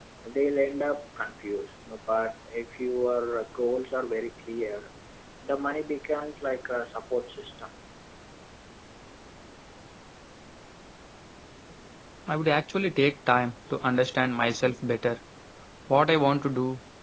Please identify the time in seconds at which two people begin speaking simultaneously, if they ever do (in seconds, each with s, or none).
none